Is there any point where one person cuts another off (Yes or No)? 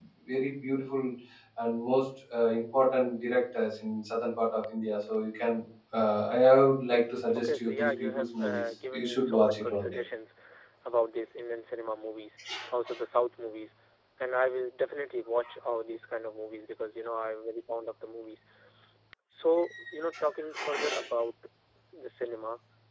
Yes